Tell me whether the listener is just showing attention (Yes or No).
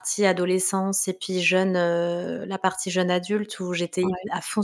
Yes